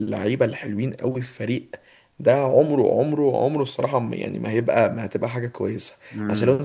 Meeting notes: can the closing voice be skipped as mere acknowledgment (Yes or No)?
Yes